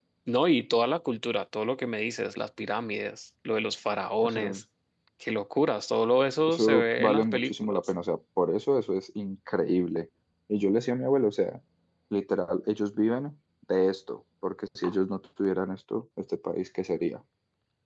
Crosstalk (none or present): present